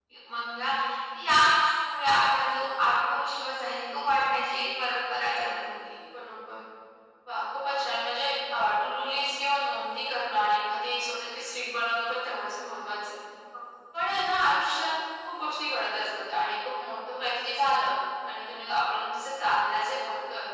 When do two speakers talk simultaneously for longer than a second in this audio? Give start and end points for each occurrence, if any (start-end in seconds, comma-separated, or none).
none